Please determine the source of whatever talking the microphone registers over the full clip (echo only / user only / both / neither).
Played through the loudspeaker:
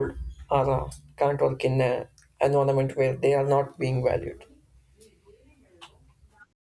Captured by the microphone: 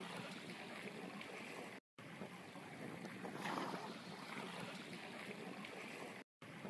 neither